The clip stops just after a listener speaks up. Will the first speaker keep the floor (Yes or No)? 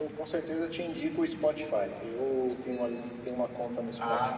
Yes